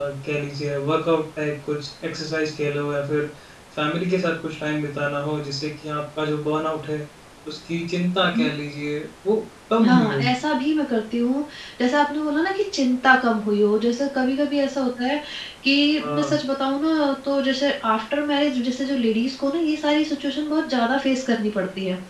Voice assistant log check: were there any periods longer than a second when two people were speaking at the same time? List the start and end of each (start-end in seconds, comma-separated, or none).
none